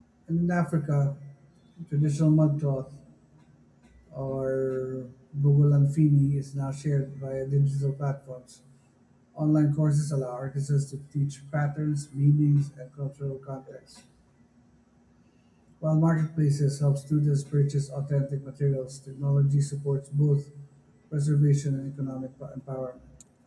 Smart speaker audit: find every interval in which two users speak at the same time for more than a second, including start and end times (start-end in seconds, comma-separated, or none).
none